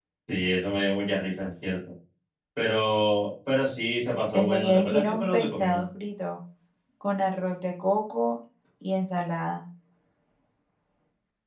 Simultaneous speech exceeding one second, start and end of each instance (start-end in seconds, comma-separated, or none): 4.3-5.8